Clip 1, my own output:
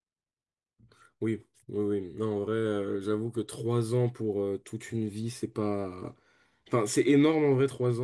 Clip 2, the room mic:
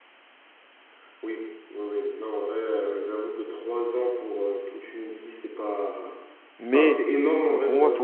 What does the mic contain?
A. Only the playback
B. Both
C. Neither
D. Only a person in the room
B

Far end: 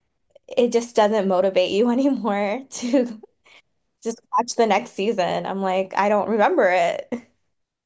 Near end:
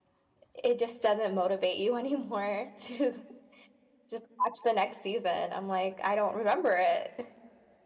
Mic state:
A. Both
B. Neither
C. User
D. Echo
D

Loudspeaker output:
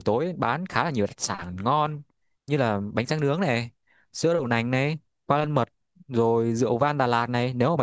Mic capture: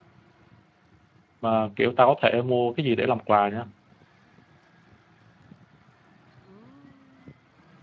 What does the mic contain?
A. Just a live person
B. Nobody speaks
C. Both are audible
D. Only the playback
A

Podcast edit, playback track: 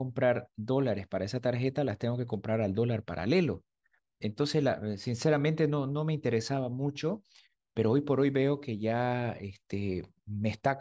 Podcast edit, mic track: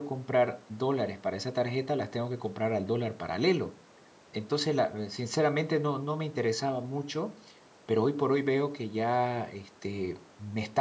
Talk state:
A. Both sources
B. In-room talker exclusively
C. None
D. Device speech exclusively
D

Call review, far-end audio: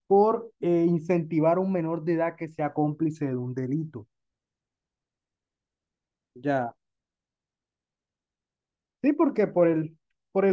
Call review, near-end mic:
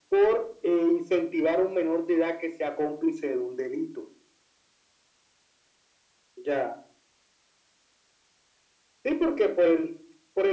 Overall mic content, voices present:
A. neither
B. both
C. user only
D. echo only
D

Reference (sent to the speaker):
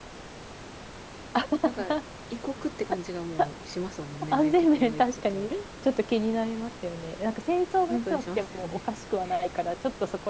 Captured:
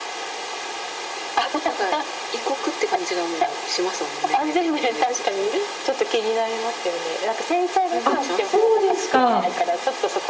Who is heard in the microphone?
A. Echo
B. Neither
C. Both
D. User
C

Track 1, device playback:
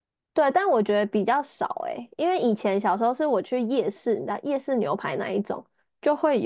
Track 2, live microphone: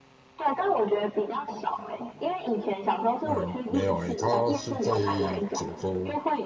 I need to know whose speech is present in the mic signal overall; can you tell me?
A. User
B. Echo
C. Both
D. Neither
C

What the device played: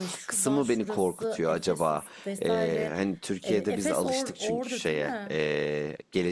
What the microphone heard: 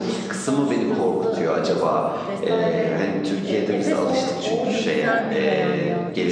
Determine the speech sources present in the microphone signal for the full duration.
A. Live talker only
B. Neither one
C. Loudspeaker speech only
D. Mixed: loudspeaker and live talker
D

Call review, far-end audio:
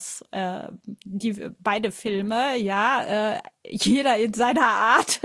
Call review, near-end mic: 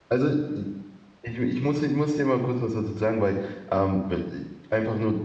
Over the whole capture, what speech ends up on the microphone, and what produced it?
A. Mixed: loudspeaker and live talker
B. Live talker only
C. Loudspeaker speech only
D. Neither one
B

